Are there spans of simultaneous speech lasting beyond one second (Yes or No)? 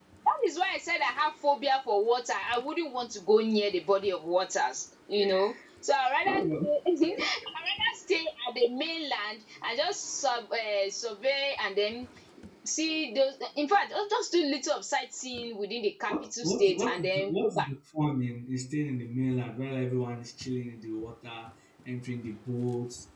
Yes